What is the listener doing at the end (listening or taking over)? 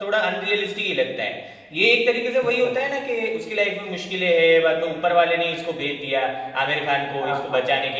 listening